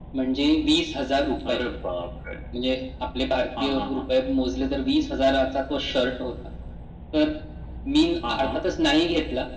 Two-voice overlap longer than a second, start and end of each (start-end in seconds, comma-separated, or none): none